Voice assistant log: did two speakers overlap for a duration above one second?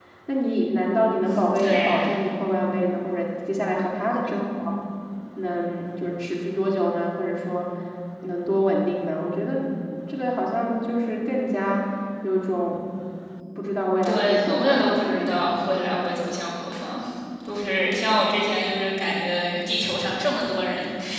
Yes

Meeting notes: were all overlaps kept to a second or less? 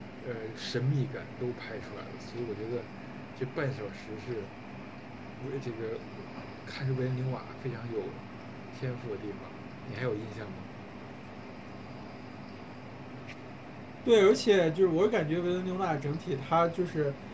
Yes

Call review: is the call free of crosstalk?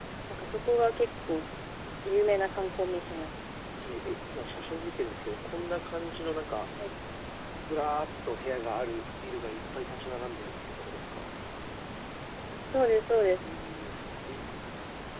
Yes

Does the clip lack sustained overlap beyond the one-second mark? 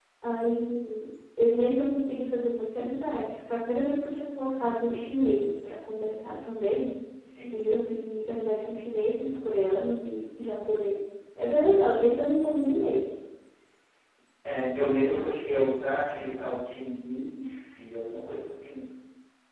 Yes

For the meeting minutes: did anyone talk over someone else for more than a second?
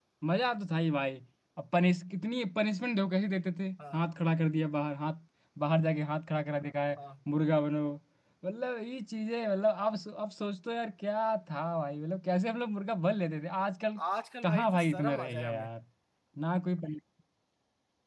Yes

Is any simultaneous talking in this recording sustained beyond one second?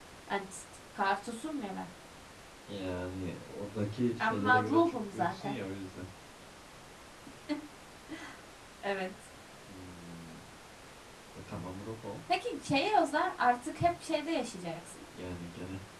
Yes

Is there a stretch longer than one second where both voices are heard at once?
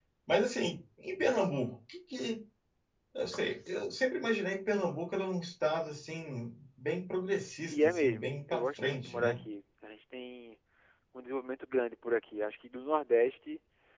Yes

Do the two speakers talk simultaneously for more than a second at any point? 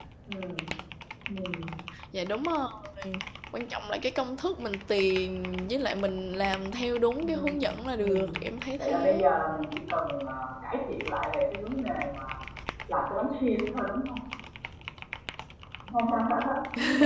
No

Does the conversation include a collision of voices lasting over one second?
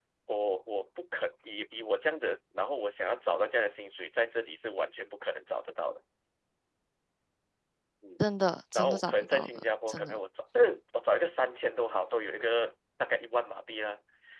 Yes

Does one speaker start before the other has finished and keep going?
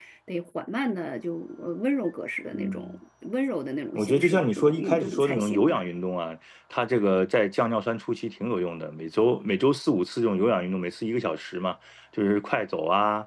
Yes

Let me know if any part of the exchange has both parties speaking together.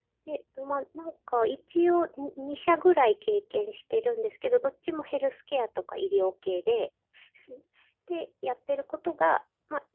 No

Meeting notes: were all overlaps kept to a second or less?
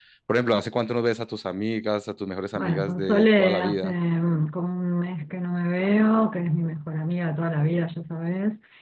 No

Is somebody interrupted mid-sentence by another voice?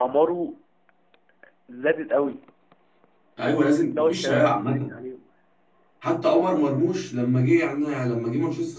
Yes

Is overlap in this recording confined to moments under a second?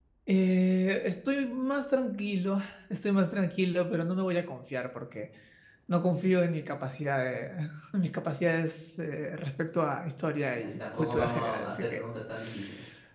No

